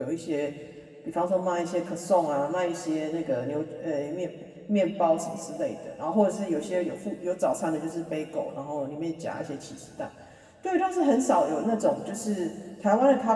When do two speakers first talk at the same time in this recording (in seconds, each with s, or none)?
none